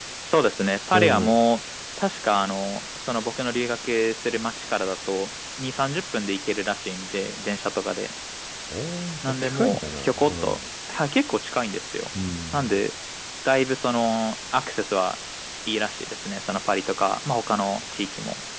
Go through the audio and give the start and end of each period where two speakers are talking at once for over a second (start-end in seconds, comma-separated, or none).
9.2-10.6